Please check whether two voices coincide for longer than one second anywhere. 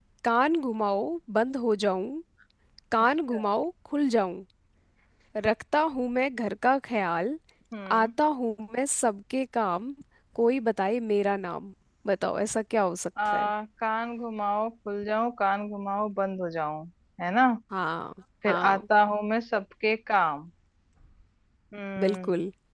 No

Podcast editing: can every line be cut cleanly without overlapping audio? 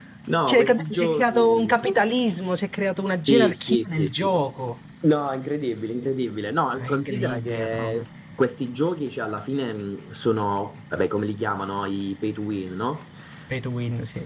No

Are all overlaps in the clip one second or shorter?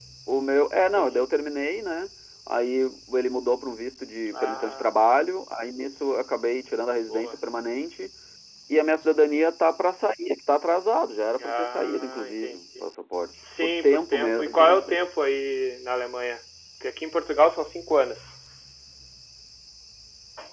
No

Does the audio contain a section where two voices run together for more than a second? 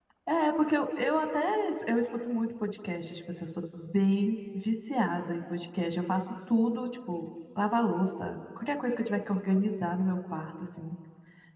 No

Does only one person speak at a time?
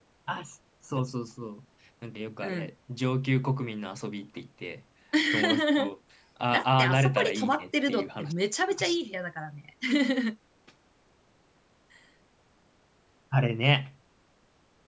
No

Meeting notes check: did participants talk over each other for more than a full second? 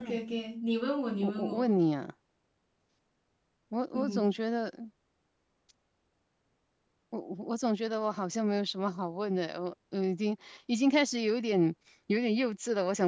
No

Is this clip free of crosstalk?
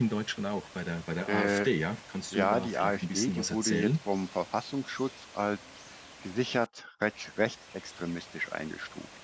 No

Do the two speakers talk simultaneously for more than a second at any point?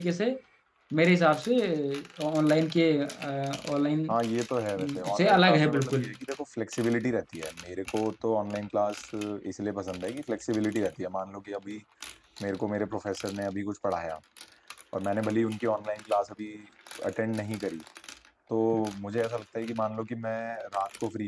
Yes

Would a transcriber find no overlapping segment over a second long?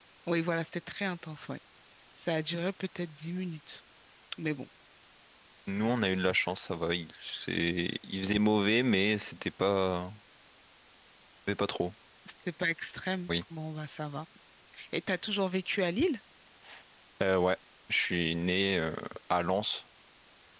Yes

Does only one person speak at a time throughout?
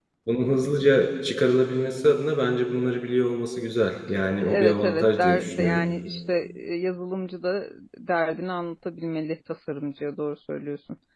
No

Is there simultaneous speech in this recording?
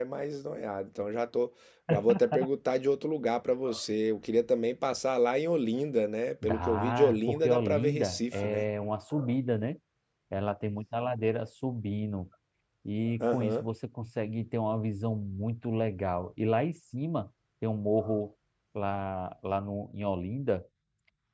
Yes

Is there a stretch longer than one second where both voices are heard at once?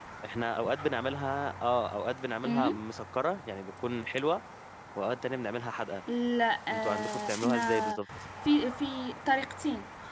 Yes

